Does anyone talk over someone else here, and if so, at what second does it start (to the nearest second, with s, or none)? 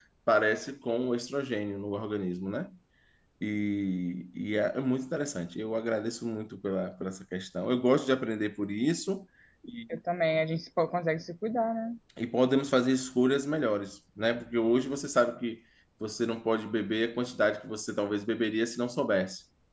none